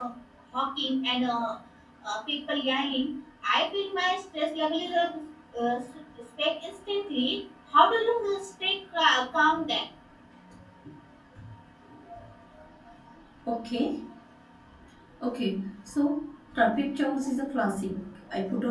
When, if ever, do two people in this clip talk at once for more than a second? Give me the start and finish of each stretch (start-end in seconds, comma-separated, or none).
none